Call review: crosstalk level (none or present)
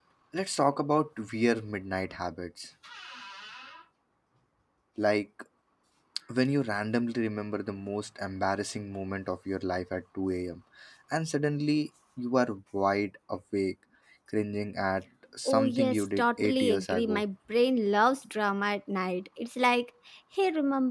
present